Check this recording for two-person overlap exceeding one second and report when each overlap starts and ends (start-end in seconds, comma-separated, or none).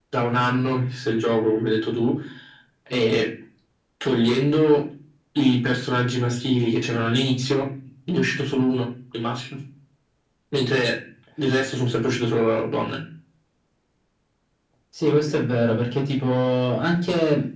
none